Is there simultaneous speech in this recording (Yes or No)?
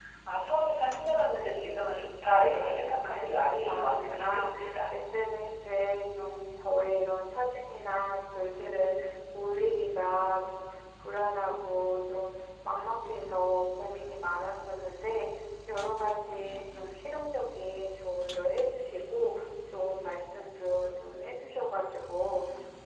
Yes